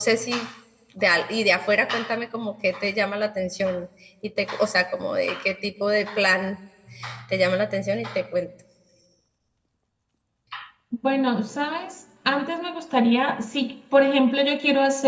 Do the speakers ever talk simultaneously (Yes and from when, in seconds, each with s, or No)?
No